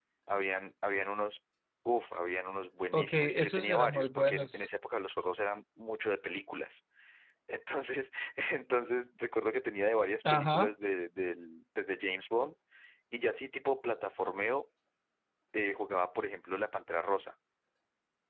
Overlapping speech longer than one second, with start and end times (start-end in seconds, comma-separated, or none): 2.9-4.7